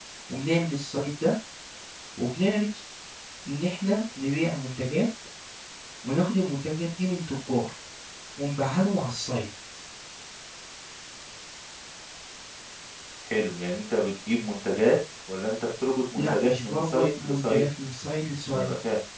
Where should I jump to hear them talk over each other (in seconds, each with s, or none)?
16.2 s